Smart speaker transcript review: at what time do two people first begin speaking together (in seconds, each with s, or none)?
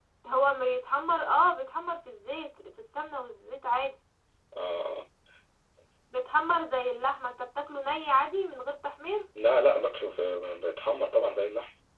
none